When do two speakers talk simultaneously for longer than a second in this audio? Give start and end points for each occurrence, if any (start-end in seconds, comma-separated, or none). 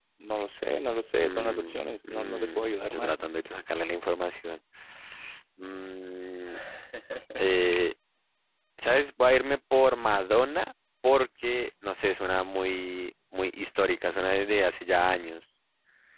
1.2-3.2